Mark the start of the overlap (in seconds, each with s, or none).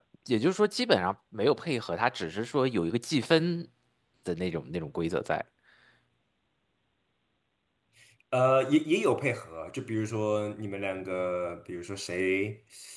none